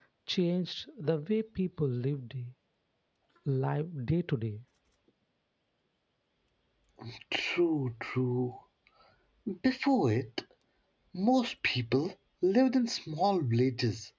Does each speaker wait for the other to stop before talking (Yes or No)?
Yes